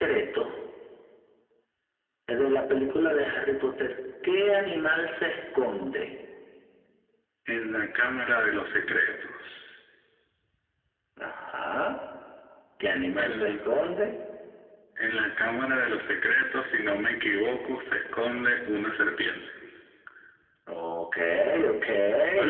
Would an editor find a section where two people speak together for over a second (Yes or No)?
No